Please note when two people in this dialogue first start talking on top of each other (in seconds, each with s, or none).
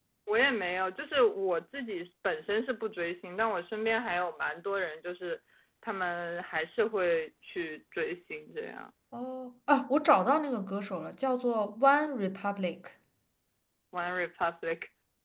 none